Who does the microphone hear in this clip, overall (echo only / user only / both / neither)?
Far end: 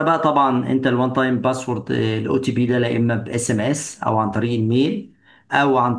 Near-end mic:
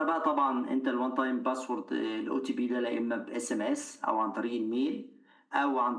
echo only